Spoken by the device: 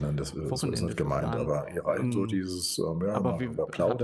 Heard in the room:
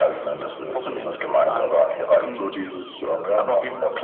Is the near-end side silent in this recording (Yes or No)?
Yes